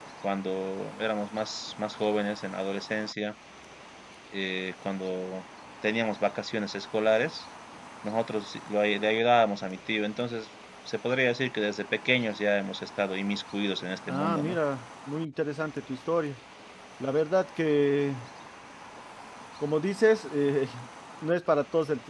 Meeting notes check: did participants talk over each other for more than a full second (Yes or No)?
No